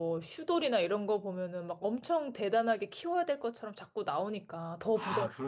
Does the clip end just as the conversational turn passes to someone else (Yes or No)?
Yes